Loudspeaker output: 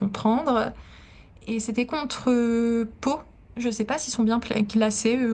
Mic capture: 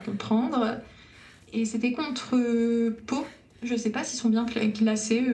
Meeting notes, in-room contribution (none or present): none